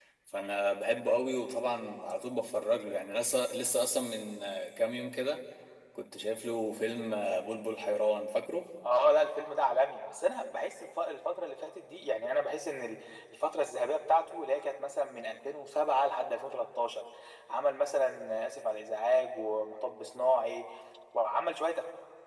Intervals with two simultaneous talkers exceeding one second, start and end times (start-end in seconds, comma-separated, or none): none